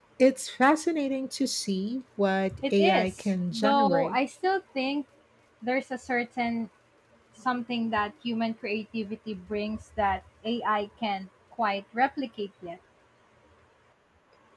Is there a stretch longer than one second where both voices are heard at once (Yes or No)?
Yes